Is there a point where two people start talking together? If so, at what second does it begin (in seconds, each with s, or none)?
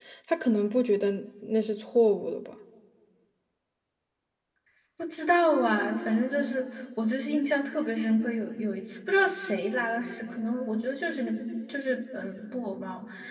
none